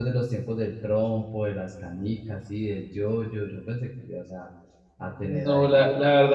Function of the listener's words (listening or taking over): taking over